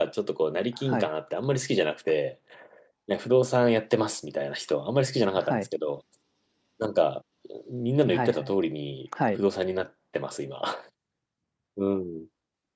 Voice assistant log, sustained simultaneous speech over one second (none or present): none